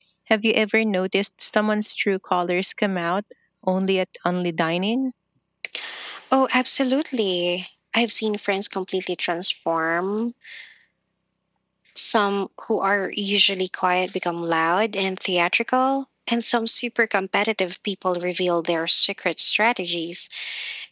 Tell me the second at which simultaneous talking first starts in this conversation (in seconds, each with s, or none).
none